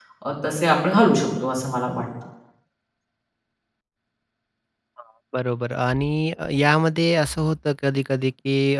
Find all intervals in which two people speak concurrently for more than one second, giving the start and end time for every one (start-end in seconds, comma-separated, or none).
none